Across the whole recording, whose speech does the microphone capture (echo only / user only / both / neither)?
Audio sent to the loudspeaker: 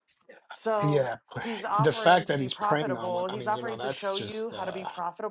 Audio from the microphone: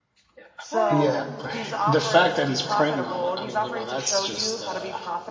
both